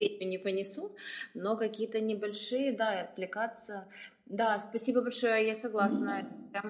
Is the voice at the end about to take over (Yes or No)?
No